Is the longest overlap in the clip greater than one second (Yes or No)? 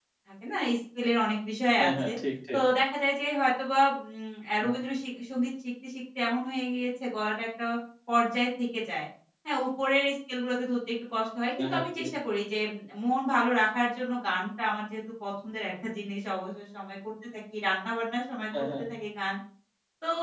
No